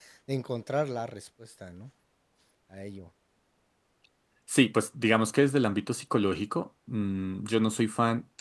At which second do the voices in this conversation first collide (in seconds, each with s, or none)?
none